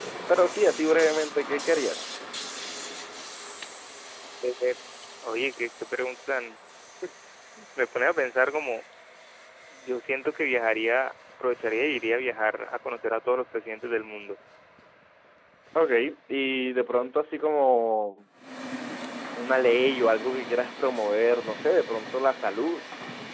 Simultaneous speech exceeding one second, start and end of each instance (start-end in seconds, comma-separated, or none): none